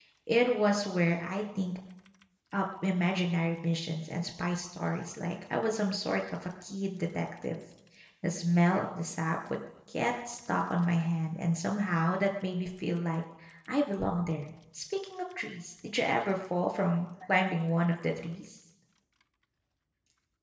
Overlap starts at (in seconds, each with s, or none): none